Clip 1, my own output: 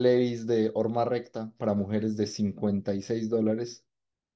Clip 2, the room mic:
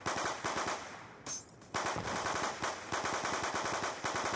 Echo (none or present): none